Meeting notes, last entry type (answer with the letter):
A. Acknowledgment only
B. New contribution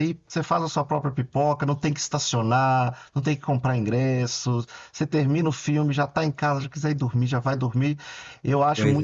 A